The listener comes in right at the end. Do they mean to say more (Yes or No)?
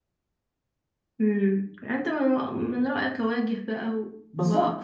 Yes